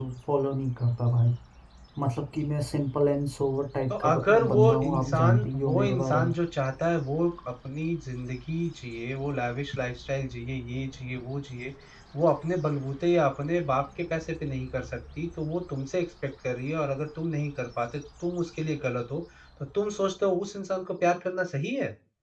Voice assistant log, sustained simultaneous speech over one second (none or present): present